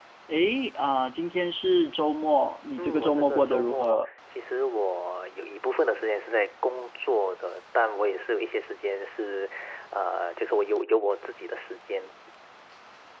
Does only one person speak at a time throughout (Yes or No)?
No